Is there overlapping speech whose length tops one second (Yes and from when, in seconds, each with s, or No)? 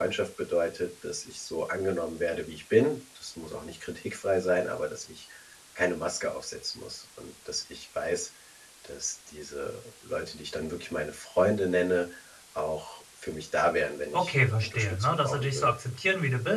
Yes, from 14.1 s